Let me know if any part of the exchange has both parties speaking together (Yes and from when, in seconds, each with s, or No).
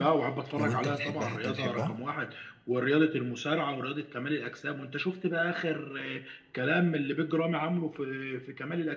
Yes, from 0.6 s